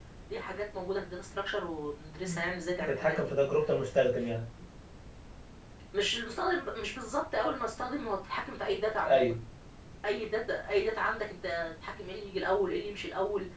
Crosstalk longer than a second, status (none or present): none